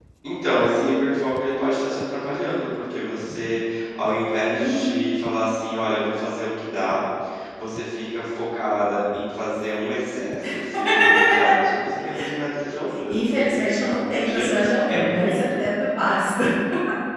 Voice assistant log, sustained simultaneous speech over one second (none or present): present